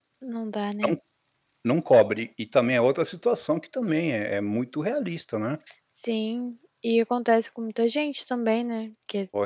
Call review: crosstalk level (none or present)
none